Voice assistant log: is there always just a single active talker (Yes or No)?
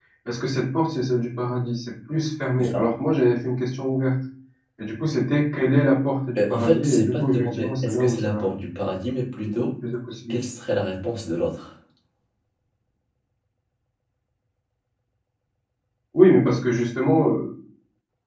No